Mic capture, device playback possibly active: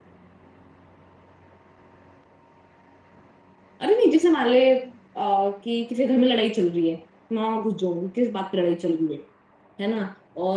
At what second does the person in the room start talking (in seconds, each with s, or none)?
3.8 s